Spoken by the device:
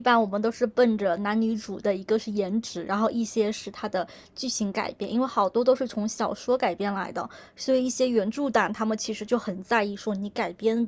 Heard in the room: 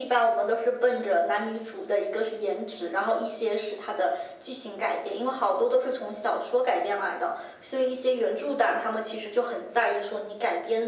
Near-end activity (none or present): none